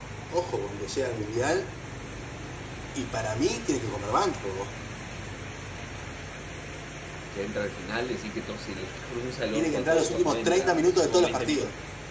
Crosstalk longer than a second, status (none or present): present